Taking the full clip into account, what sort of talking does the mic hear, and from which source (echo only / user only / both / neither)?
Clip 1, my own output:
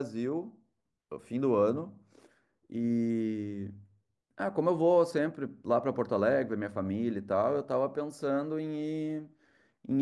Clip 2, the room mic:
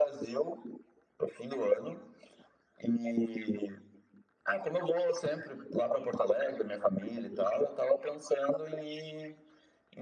echo only